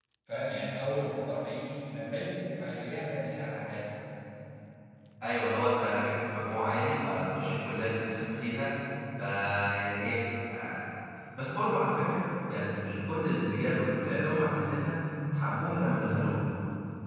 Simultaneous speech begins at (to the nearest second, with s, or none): none